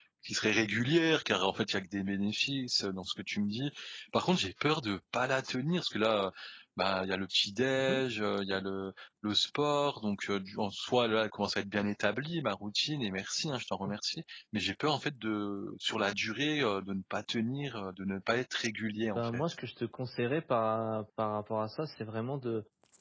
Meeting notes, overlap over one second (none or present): none